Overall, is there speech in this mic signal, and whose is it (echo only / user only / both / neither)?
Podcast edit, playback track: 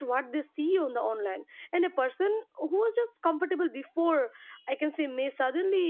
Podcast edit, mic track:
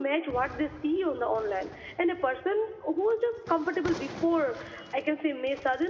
echo only